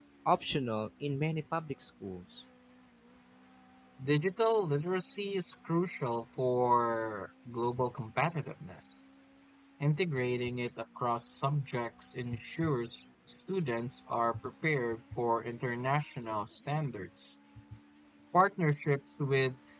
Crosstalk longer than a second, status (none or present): none